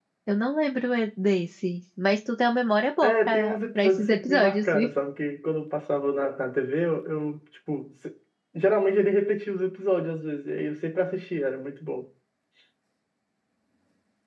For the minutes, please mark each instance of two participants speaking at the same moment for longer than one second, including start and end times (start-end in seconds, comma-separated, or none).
3.0-4.9